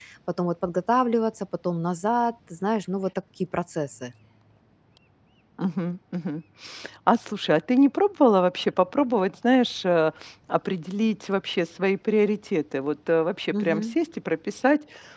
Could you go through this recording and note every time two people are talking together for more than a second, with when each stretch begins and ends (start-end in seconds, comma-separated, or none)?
none